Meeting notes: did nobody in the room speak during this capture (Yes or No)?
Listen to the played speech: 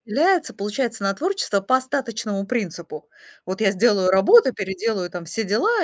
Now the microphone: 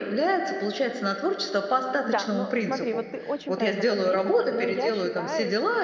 No